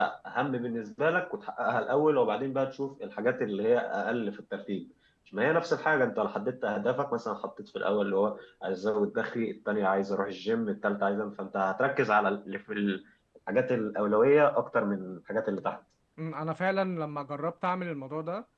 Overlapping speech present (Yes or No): No